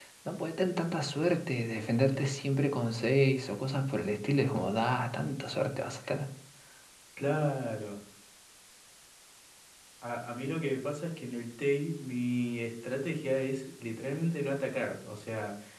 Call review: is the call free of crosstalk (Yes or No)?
Yes